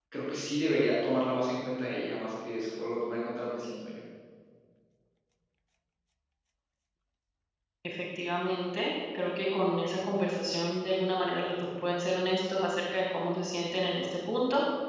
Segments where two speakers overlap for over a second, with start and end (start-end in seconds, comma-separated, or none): none